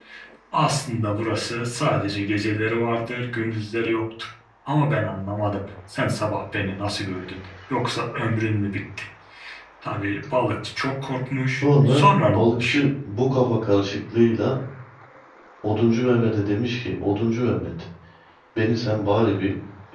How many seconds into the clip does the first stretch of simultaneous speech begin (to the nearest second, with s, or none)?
12 s